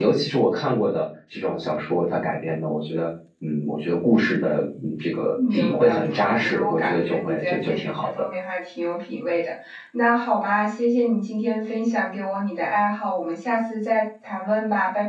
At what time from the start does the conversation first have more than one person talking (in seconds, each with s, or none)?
5.4 s